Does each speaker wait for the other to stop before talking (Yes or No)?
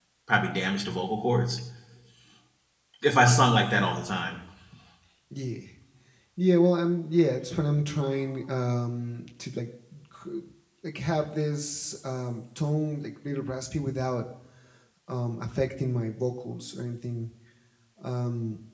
Yes